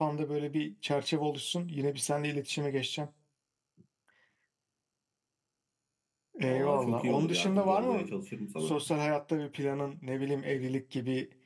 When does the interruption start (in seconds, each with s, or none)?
6.4 s